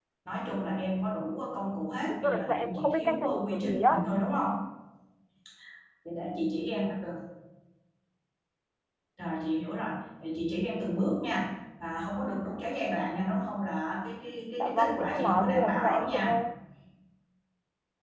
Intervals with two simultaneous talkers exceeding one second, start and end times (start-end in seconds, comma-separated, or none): 2.1-4.0, 14.6-16.3